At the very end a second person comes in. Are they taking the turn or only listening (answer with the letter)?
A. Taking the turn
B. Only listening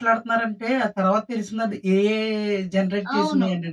A